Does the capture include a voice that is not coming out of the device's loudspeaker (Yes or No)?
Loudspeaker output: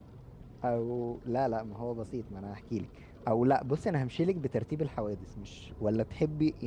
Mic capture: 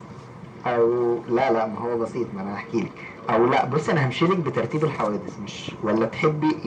No